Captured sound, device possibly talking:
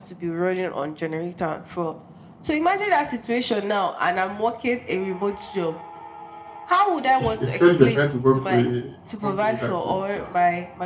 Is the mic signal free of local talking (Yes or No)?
No